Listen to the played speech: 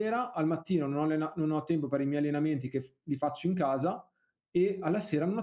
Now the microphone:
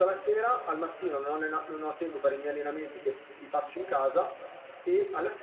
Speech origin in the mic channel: echo only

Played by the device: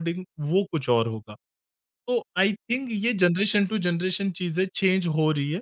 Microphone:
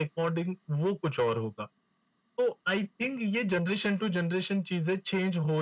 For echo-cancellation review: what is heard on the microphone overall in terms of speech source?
echo only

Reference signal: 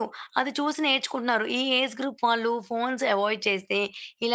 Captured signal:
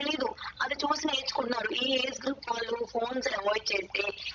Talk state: echo only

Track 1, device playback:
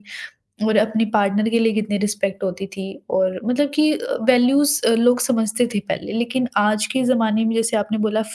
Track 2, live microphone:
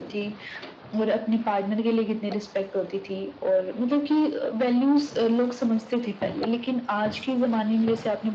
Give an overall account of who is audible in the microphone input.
echo only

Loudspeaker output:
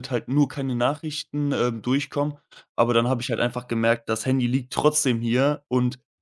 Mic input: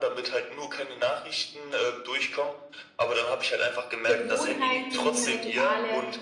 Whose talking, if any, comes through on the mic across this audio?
both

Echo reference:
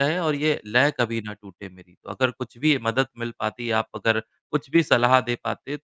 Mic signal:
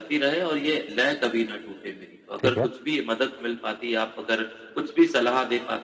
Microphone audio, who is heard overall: both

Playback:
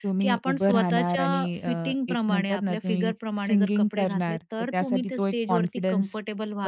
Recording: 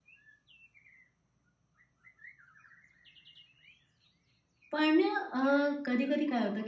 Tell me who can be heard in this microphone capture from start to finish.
user only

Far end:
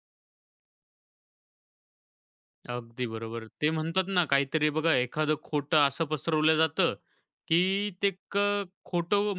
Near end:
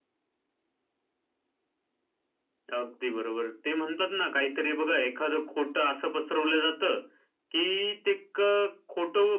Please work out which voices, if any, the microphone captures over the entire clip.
echo only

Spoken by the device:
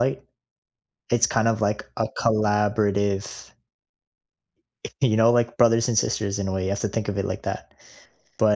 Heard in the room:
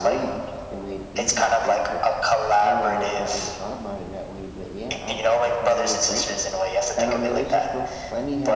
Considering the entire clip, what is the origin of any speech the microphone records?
both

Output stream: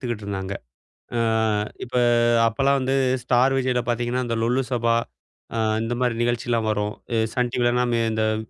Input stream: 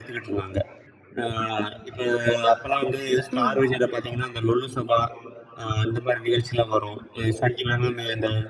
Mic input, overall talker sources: both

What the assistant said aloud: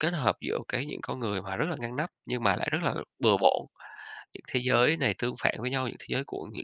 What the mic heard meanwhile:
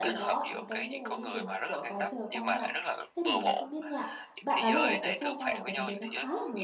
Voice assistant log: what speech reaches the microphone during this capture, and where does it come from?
both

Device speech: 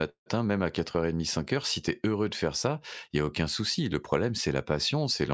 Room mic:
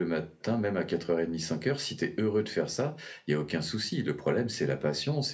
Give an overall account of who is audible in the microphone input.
echo only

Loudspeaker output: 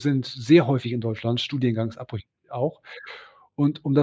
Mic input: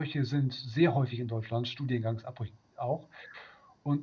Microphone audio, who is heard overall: echo only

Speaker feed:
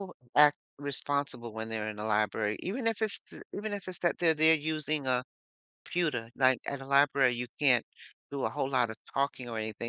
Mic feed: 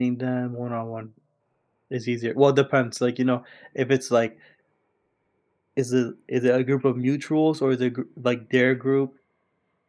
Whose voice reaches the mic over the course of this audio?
user only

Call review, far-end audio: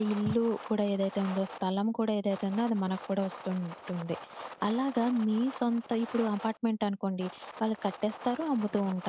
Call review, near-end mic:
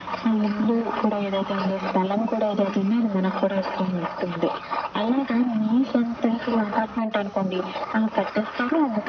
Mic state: echo only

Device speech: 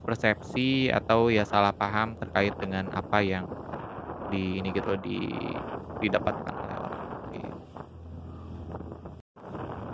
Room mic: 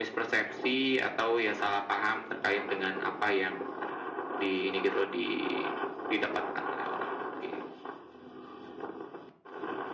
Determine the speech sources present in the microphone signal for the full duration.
echo only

